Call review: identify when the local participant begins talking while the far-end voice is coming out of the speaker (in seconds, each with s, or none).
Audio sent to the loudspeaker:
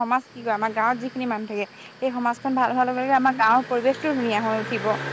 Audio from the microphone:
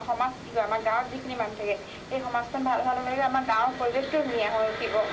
none